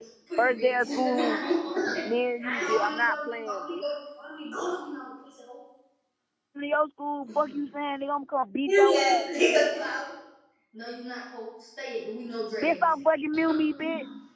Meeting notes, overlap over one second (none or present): present